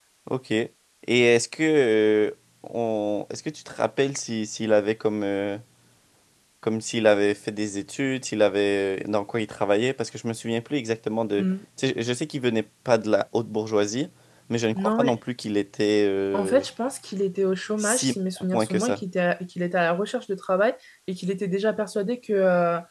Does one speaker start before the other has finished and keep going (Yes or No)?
Yes